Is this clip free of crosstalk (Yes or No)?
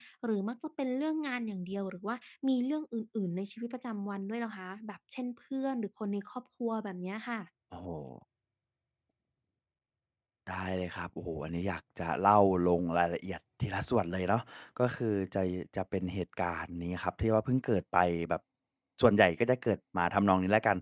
Yes